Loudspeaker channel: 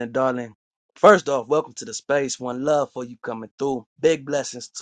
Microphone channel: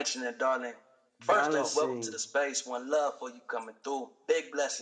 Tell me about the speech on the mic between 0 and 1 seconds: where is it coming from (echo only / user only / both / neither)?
echo only